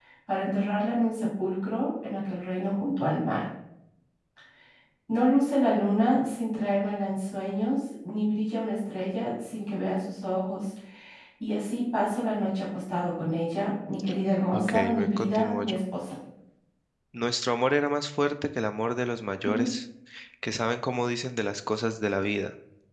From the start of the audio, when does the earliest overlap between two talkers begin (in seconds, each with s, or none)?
14.5 s